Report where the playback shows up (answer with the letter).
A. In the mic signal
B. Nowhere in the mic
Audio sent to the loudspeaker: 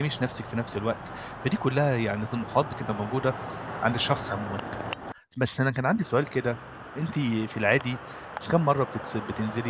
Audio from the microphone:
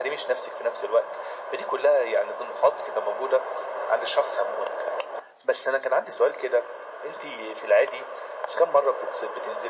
A